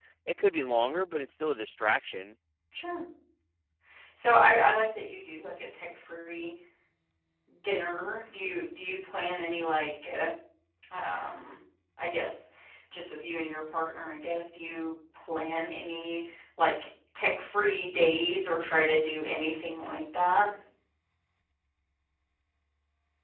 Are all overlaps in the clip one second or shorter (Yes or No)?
Yes